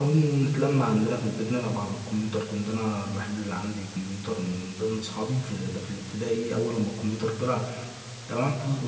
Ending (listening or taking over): listening